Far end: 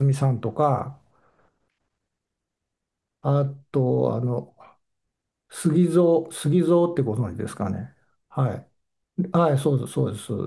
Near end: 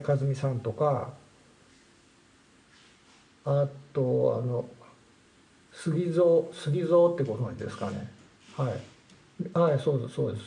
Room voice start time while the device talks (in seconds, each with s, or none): none